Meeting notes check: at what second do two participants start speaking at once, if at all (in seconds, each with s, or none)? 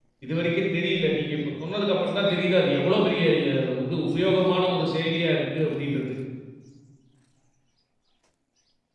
none